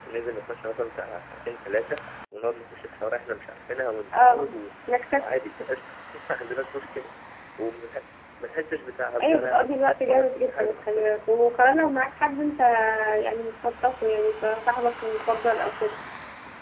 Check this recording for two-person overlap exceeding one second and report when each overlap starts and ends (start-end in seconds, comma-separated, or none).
9.2-11.2